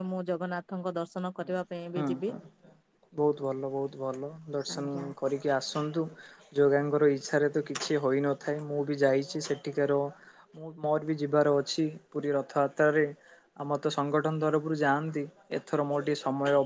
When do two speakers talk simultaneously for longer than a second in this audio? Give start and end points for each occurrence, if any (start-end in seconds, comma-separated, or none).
none